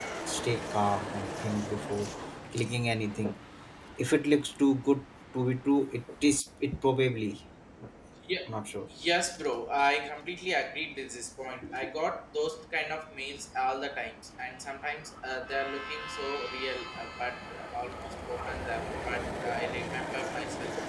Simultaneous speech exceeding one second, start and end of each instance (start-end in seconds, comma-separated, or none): none